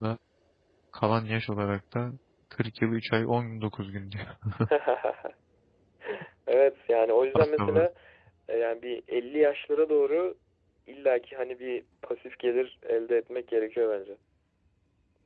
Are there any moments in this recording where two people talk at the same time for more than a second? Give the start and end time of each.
none

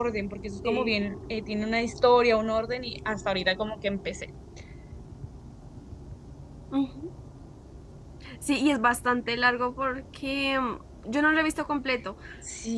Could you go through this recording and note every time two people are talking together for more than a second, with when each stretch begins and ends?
none

